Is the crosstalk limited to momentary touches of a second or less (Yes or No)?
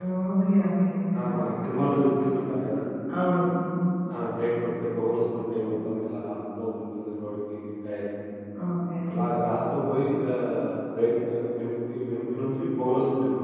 Yes